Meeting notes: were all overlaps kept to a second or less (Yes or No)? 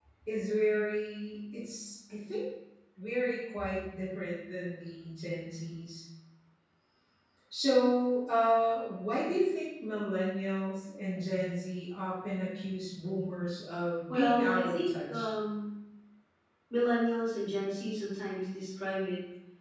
No